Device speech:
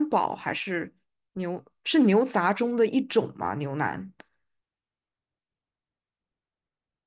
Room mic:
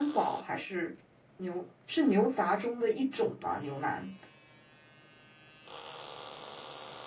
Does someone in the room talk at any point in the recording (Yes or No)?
No